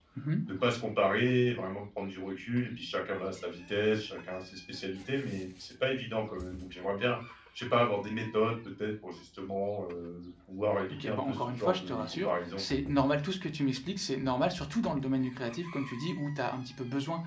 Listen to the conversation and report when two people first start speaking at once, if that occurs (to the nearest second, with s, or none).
11 s